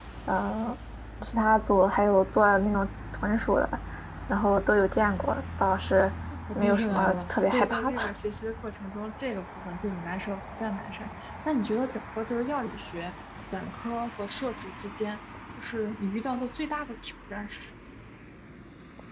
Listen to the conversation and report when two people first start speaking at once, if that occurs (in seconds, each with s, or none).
6.3 s